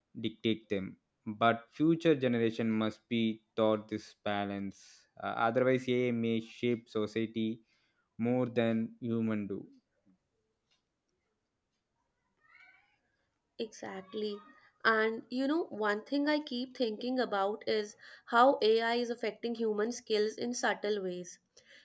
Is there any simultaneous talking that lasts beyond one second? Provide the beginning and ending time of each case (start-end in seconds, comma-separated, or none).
none